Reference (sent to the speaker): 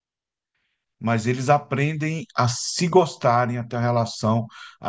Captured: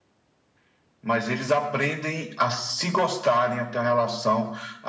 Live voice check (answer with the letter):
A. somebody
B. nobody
B